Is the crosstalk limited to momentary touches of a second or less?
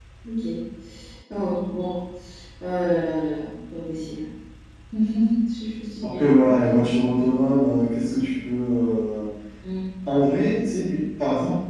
Yes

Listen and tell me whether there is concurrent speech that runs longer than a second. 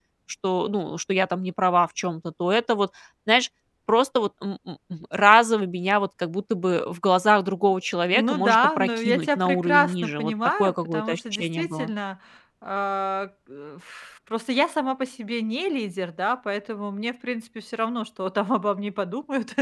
Yes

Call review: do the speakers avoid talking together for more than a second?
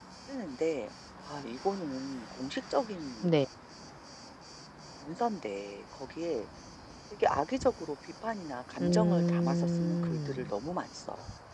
No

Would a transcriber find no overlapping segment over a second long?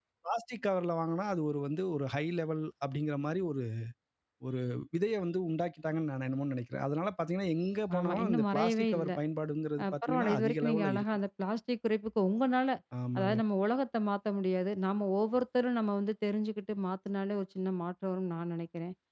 No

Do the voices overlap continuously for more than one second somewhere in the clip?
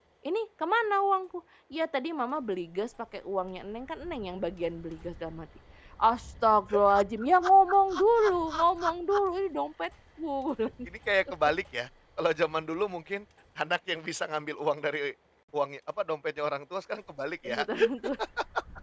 No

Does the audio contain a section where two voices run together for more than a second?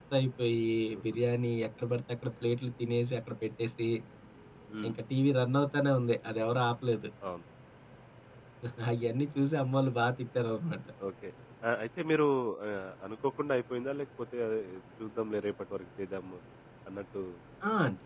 No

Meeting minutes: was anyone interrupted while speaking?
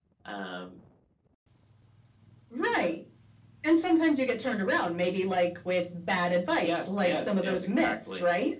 Yes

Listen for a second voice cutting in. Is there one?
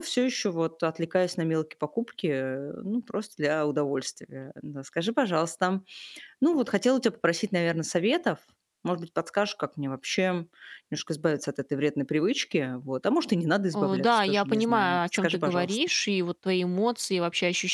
Yes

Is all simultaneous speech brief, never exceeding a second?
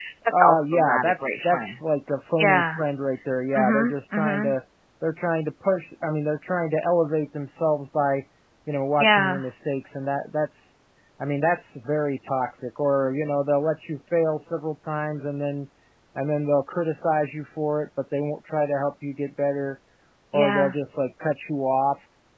No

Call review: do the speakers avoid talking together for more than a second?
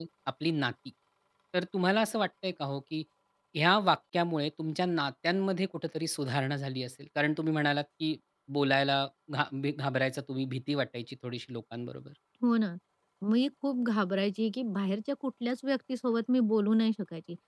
Yes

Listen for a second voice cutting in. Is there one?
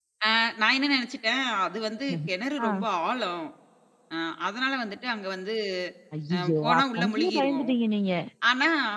Yes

